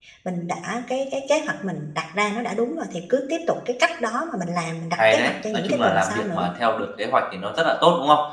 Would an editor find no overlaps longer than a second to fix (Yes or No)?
No